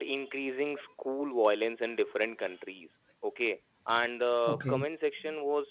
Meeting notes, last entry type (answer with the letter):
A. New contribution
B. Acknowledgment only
B